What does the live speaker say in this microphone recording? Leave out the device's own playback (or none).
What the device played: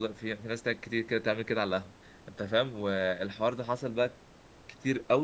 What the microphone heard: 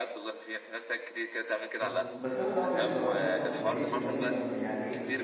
بس بس انا صعب بصراحه شايف برضو باريس ان هي ما... يعني ايه